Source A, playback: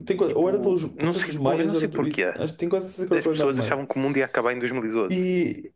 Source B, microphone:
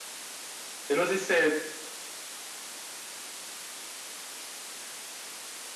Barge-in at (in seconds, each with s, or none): 0.9 s